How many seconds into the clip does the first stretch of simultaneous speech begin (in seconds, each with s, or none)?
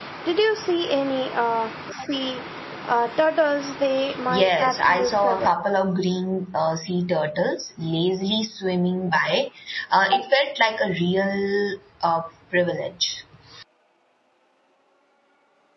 4.3 s